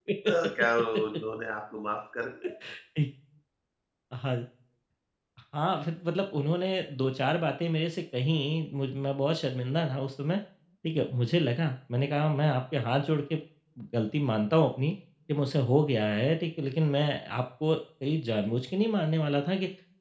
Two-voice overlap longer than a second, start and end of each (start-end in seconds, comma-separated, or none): none